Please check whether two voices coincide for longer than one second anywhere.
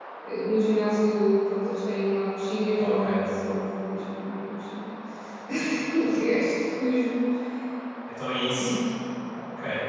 No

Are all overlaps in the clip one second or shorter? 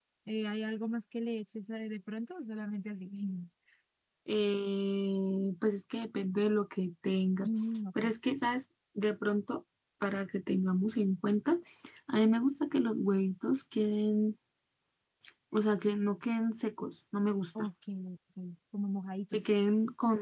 Yes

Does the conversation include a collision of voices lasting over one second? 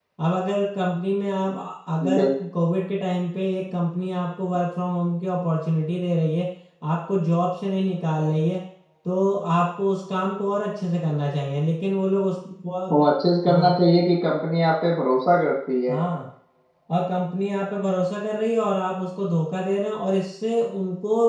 No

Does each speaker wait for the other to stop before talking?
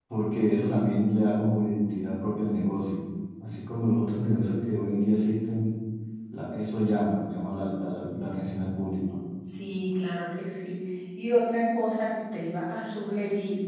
Yes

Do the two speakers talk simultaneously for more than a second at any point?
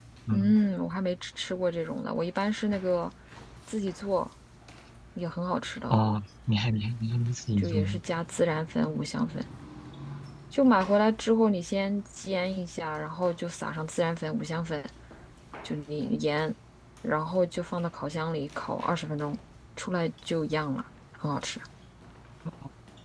No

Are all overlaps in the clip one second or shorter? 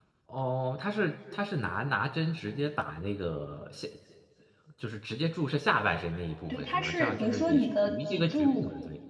No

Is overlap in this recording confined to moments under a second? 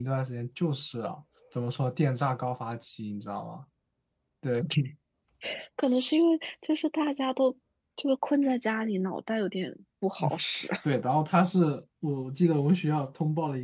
Yes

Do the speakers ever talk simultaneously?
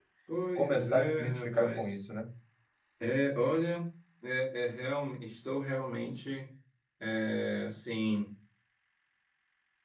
Yes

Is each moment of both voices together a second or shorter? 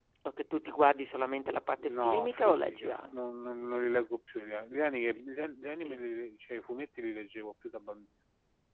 No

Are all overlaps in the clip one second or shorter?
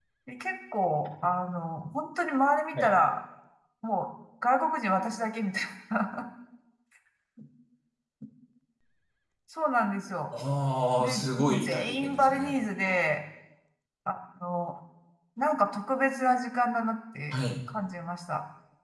No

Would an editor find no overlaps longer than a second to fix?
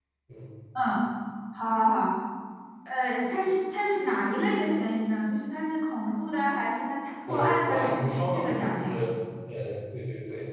No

